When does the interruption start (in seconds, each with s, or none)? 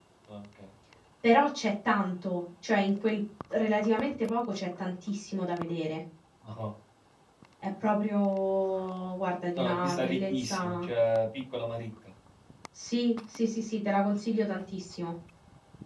9.6 s